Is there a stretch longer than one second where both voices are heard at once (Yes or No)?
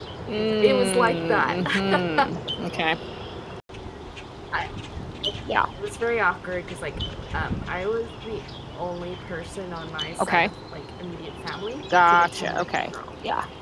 Yes